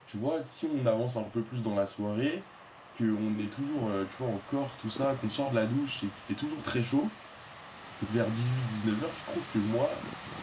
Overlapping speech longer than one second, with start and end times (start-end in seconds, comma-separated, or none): none